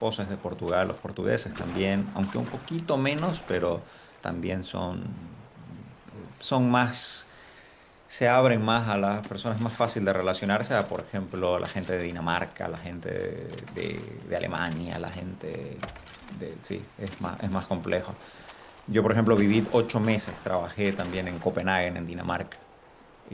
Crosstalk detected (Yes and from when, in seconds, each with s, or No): No